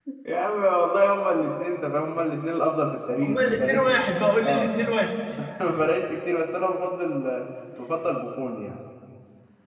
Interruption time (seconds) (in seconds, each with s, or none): 3.2 s